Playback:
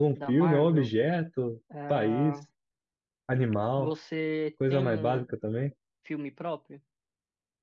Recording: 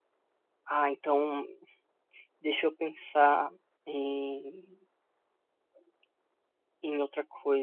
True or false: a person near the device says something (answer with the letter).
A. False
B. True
B